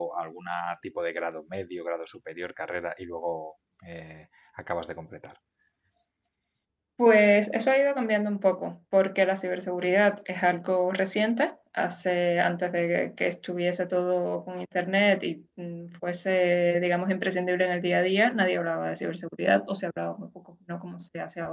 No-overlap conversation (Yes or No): Yes